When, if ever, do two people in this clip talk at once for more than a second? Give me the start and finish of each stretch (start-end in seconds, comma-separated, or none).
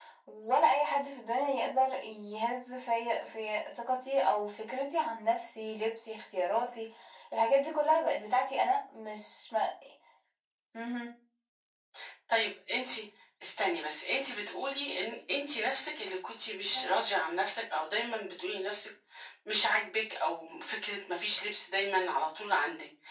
none